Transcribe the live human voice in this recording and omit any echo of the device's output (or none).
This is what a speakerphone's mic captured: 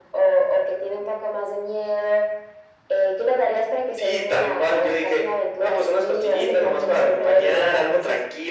es porque te dieron ganas de perderte, ¿no? Entonces,